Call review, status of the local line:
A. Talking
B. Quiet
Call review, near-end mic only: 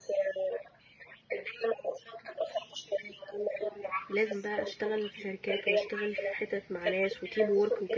A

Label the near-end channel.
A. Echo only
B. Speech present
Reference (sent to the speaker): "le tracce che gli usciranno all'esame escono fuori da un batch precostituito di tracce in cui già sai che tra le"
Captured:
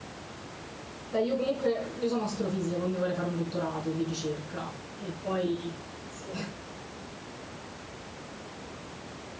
B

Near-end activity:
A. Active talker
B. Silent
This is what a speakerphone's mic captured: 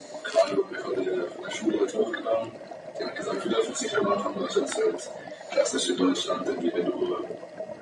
B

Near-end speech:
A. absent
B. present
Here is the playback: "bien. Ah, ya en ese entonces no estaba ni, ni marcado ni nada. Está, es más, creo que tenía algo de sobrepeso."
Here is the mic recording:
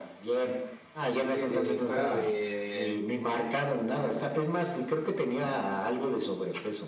B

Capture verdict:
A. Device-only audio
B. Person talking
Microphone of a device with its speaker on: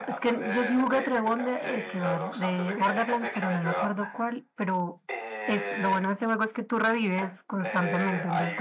B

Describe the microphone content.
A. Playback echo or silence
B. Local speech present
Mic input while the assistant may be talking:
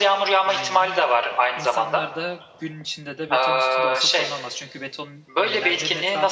B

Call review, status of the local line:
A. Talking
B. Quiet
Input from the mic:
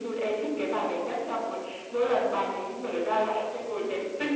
B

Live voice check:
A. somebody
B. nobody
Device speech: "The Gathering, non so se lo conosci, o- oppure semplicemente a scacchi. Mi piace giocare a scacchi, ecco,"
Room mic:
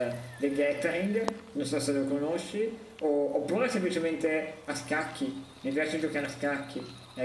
B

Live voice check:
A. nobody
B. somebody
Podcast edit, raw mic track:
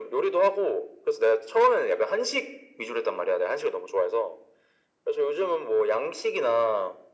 A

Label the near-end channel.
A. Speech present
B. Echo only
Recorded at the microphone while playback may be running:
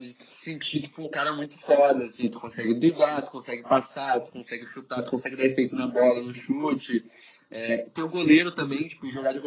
B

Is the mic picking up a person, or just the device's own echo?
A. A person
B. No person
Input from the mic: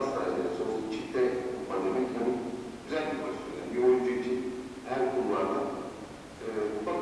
B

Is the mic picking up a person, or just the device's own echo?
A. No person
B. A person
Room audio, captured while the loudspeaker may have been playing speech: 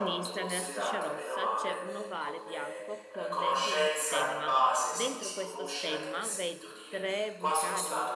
B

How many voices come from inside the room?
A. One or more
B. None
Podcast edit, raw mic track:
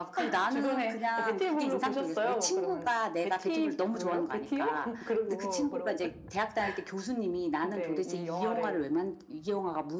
B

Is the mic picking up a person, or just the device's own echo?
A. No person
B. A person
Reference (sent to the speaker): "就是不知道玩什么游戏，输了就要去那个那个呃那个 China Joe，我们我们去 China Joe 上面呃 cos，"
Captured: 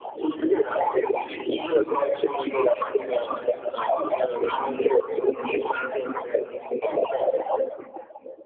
A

